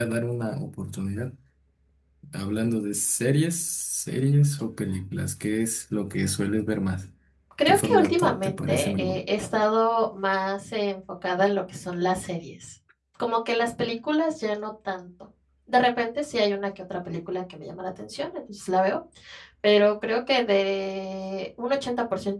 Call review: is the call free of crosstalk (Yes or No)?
No